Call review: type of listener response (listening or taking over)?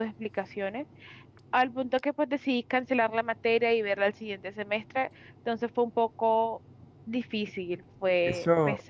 taking over